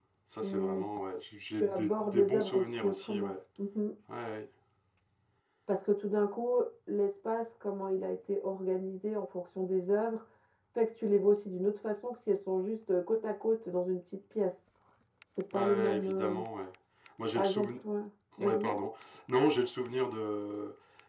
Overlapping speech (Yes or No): Yes